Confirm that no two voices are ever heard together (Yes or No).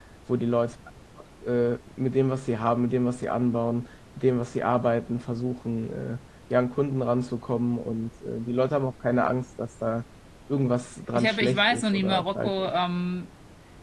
No